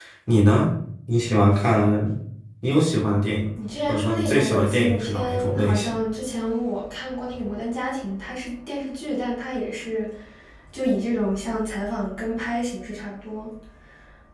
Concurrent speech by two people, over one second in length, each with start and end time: 3.9-5.9

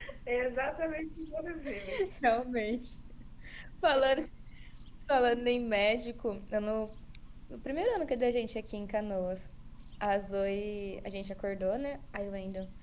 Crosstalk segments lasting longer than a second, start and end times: none

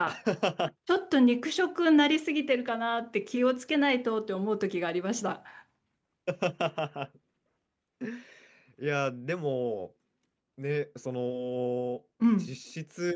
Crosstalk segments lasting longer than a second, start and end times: none

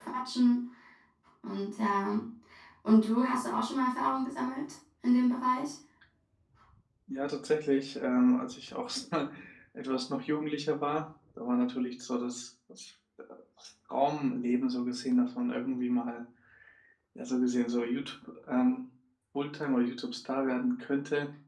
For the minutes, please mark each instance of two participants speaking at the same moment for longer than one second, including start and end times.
none

